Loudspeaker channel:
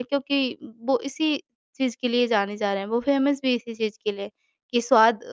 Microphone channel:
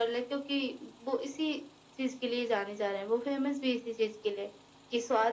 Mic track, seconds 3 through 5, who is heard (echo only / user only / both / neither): echo only